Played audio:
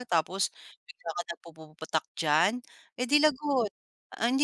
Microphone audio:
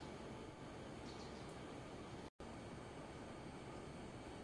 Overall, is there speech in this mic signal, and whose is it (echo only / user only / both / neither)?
neither